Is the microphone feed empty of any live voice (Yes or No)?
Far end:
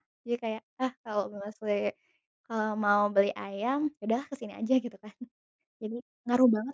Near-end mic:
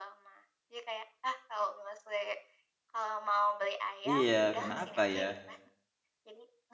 No